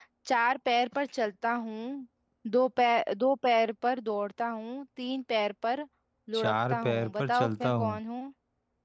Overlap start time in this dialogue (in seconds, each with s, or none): 6.3 s